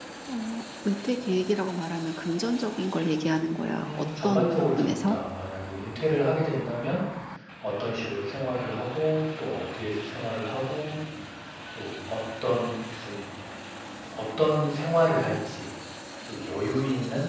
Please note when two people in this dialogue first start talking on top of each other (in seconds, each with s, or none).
3.8 s